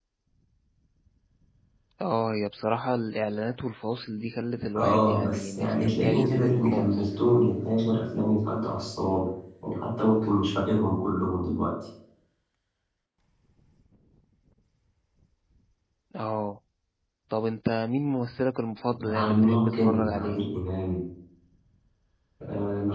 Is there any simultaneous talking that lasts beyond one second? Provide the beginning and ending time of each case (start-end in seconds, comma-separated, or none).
4.8-7.0, 19.0-20.4